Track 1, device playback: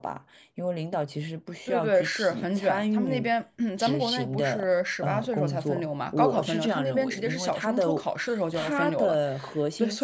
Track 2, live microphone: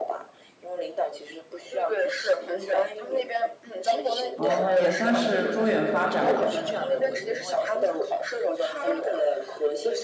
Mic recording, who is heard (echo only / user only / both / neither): both